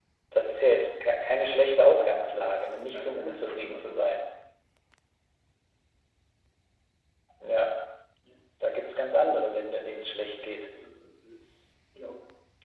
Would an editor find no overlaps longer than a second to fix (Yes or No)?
No